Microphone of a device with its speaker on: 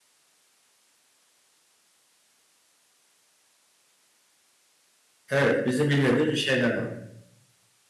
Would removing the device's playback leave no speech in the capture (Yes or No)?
No